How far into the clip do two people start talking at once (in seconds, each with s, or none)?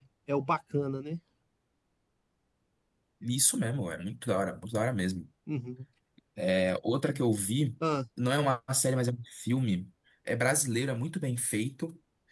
none